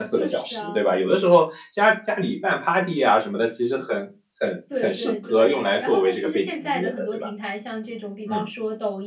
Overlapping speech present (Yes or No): Yes